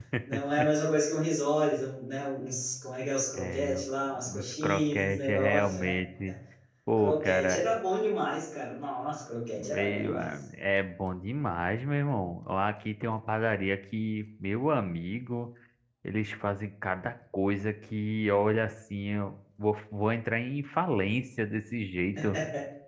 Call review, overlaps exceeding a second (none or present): present